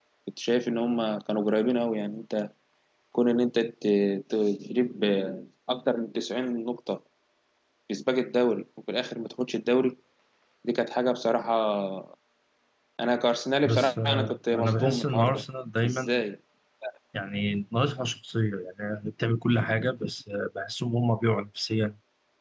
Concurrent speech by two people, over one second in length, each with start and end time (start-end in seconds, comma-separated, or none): 13.6-15.4